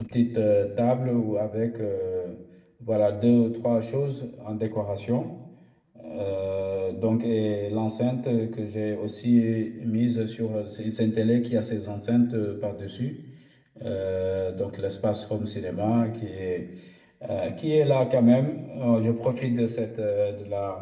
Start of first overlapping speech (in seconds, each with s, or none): none